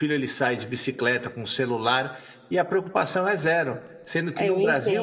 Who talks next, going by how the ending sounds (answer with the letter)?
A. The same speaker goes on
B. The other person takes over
A